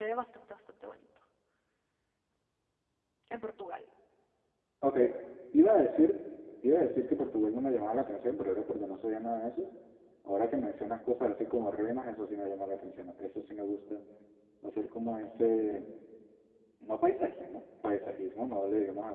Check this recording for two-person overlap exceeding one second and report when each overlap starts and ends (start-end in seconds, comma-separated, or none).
none